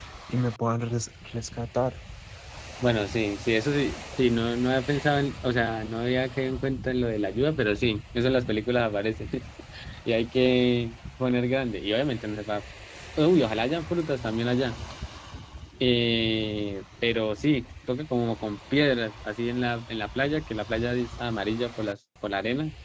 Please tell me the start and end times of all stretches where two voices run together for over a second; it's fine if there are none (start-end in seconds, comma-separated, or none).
none